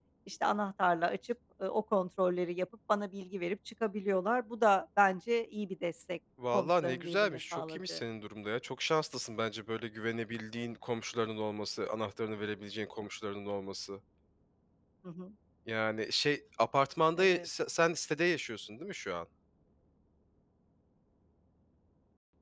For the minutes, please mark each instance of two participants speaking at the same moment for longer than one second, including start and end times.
6.5-8.0

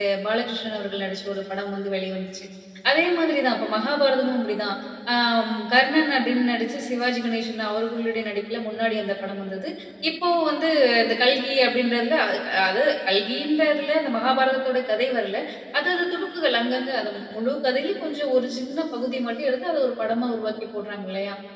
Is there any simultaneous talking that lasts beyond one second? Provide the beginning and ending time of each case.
none

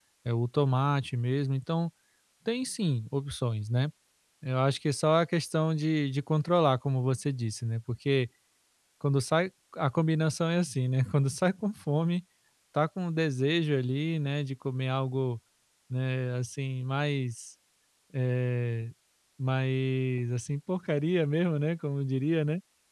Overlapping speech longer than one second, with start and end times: none

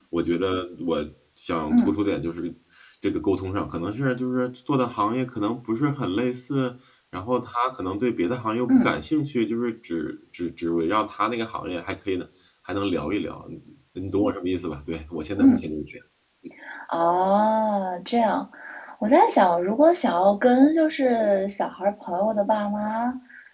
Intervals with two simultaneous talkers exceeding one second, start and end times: none

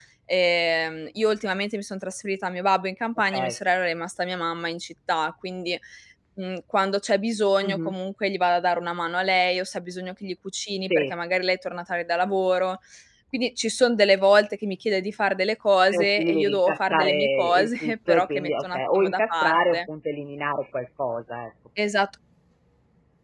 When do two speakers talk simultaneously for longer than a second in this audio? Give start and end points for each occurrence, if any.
15.9-19.8

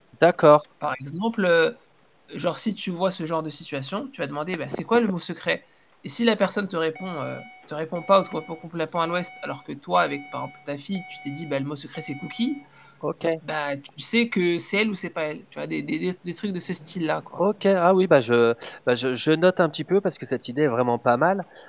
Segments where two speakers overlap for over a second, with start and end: none

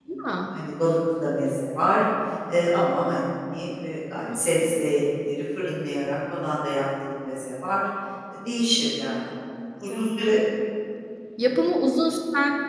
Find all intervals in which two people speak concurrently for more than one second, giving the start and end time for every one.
none

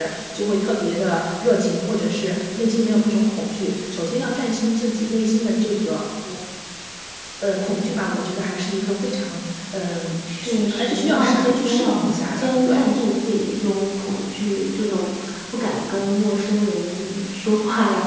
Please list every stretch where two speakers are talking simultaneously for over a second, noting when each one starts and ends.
10.4-12.8

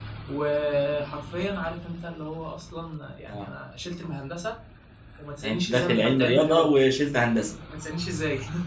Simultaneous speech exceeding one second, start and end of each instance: 5.4-6.7

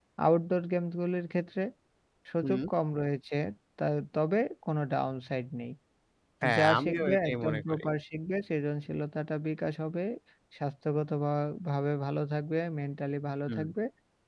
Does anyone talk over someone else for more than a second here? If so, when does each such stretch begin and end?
6.6-7.8

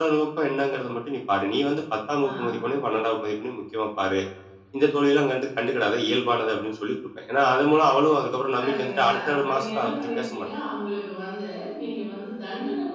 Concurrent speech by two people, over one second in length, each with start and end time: 8.6-10.5

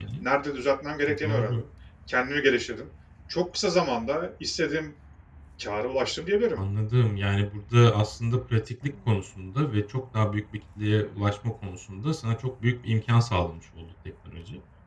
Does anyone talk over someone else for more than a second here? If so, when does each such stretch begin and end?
none

